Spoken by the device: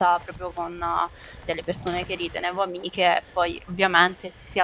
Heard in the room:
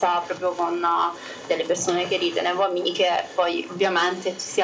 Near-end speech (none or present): none